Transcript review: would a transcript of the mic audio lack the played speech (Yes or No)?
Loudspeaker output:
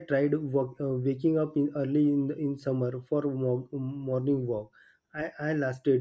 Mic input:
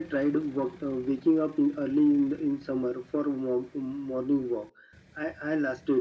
No